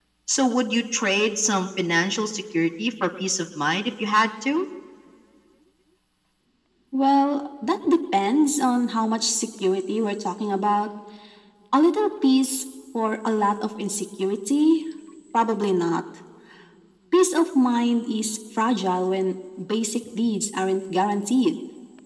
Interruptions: none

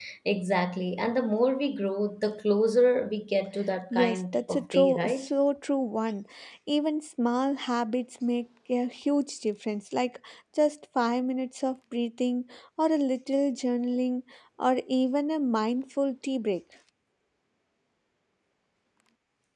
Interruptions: present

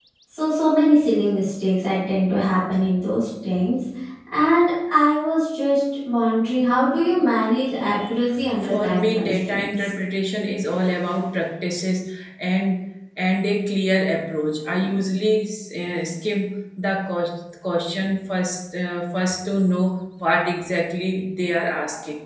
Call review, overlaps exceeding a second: present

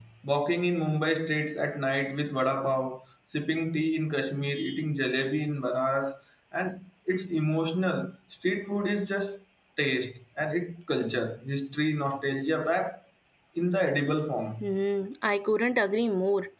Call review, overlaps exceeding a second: none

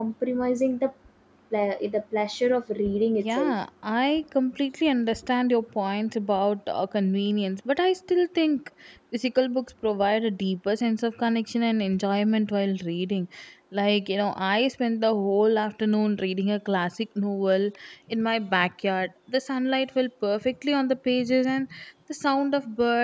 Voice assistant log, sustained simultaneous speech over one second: none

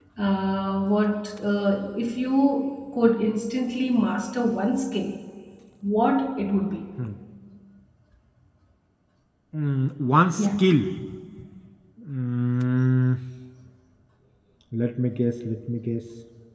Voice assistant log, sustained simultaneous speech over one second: none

